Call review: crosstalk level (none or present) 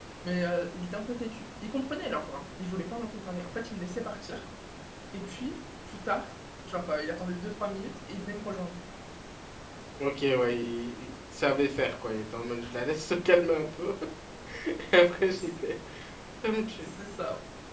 none